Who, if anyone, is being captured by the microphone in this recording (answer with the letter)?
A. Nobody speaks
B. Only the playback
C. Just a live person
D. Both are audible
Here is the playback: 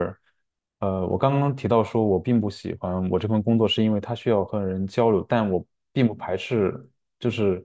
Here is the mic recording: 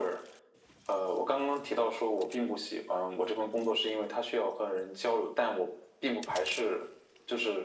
B